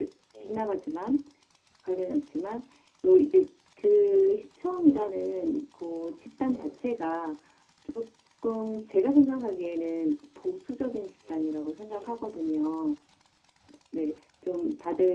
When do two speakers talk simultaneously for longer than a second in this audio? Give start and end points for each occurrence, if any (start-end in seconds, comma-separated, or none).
none